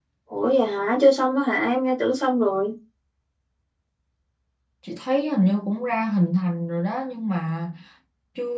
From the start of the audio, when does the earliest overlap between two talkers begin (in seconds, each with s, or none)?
none